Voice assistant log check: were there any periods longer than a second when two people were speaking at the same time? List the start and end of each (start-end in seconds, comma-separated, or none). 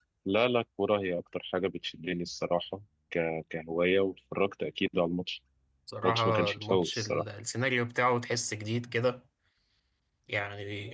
6.0-7.2